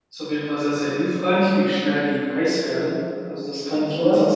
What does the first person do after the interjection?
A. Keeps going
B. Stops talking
B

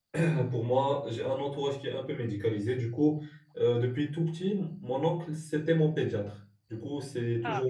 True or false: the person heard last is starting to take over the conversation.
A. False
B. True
A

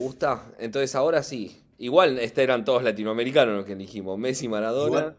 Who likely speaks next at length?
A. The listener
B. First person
A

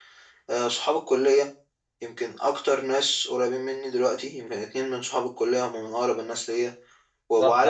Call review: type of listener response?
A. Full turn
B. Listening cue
A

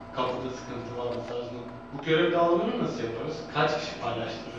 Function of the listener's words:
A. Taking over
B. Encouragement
A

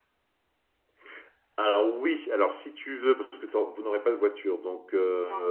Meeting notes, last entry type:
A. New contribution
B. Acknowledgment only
B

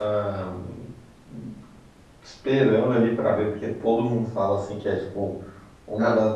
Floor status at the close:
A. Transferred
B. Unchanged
B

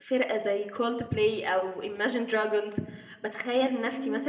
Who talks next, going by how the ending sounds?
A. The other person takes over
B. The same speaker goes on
B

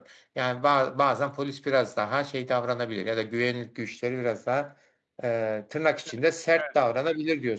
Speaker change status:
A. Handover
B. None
A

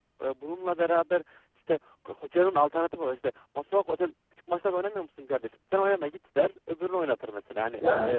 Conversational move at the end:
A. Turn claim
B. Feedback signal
B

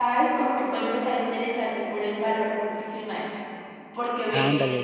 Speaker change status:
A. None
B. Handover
A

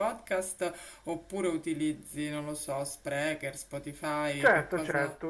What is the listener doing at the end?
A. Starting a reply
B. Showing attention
A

